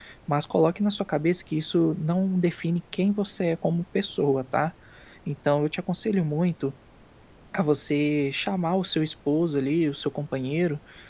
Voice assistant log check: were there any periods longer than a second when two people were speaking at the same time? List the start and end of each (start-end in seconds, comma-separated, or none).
none